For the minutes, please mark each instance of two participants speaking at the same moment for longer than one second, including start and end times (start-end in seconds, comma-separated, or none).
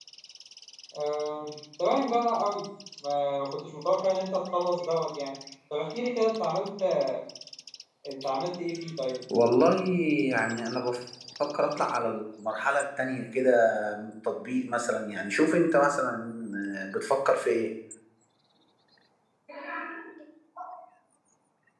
none